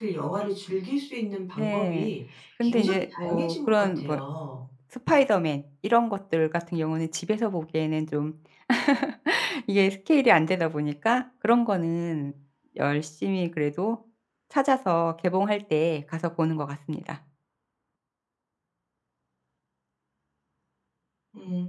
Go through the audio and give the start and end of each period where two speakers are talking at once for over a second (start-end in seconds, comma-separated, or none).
2.6-4.2